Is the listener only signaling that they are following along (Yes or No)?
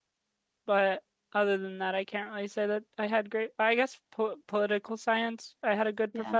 Yes